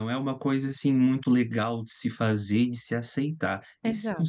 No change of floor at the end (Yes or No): Yes